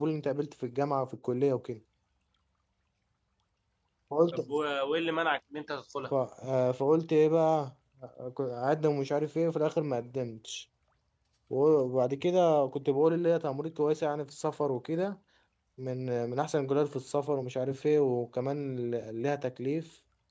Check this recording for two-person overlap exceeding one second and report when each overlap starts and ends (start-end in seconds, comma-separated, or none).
none